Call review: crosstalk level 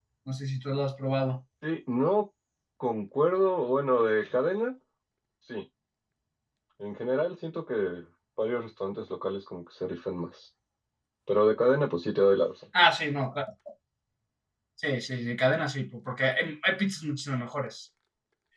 none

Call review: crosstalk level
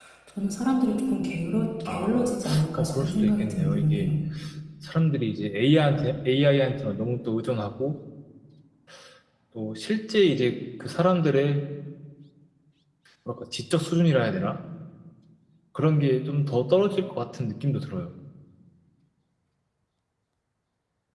present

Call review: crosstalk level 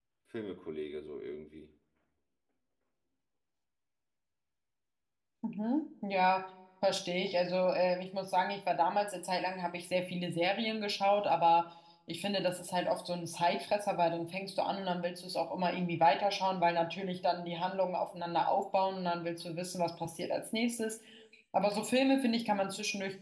none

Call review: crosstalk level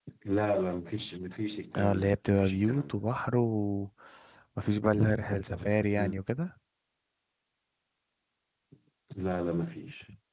present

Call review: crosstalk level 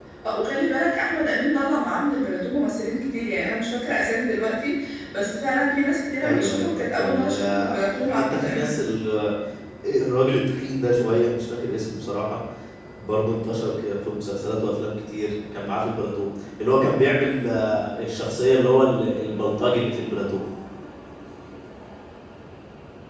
present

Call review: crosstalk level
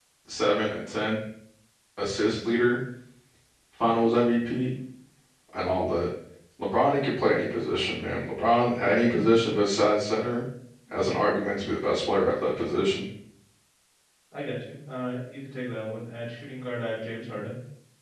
none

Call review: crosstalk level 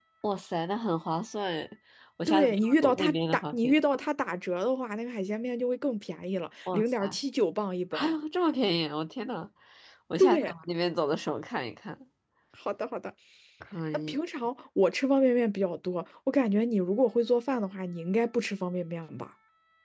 present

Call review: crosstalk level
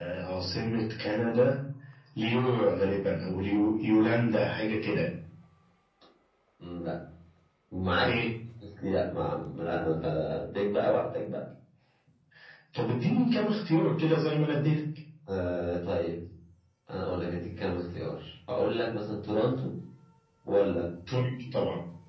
none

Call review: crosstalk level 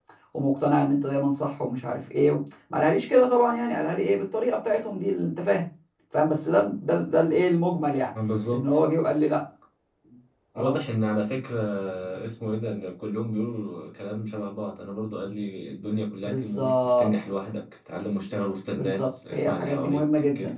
present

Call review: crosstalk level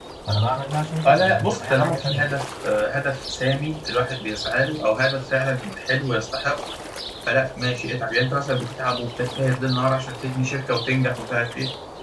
present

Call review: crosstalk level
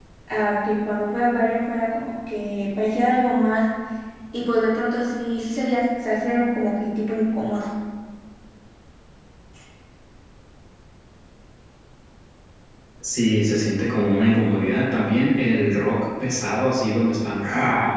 none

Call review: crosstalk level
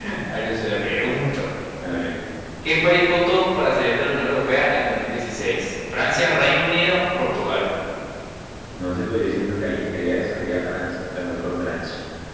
none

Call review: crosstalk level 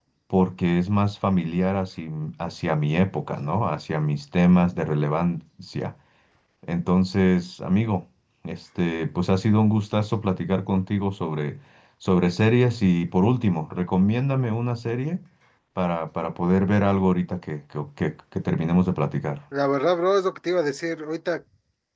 none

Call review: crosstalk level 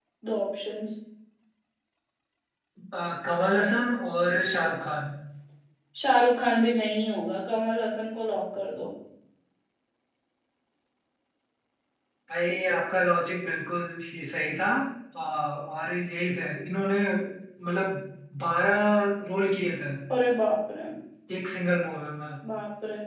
none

